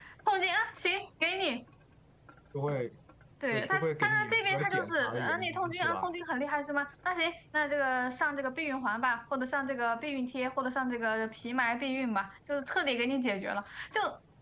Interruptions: present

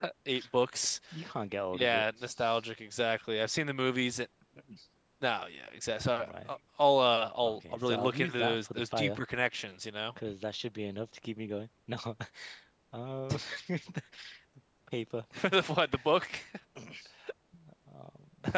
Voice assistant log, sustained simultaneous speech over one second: present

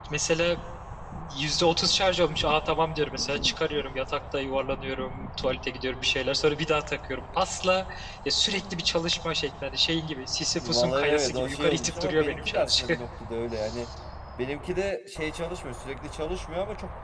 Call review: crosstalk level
present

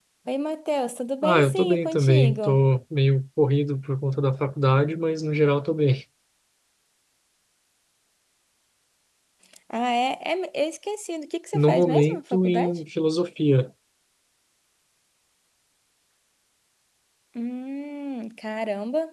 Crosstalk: present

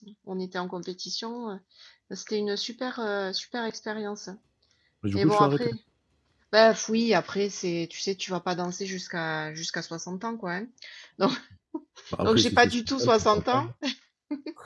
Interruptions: present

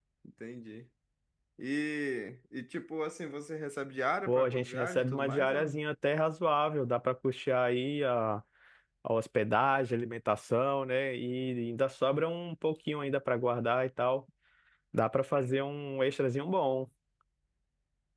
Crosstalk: present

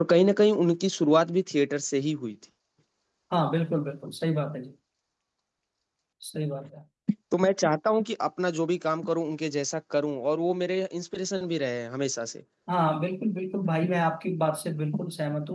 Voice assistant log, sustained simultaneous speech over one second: none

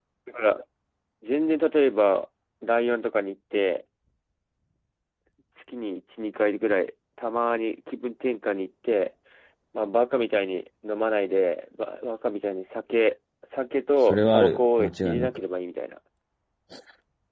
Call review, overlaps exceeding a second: present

